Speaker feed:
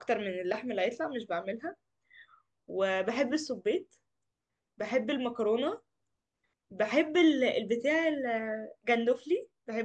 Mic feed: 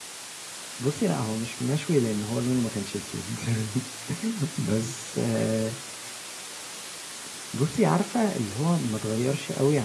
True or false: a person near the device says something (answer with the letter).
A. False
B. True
B